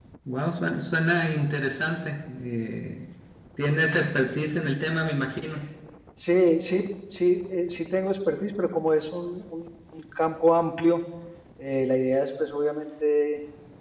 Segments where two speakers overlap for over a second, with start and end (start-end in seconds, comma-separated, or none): none